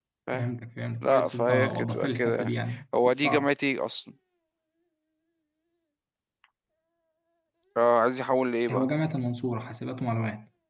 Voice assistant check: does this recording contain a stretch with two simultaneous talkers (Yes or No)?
Yes